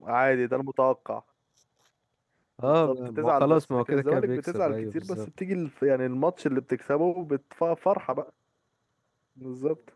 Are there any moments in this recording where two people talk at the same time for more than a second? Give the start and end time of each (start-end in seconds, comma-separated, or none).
2.6-5.2